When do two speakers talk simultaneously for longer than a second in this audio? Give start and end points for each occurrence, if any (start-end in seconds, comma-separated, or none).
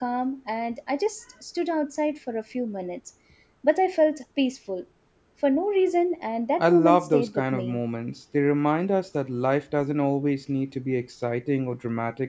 6.6-7.8